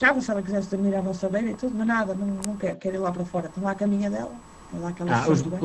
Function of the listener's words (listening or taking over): taking over